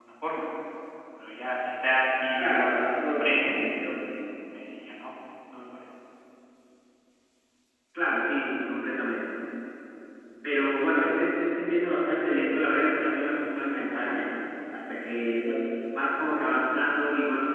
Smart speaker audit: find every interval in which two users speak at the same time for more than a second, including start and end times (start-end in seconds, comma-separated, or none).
2.4-3.6